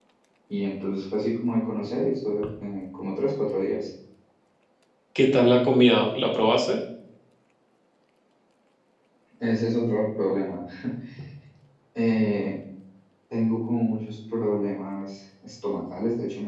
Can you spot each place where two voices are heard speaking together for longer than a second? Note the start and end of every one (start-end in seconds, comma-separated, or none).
none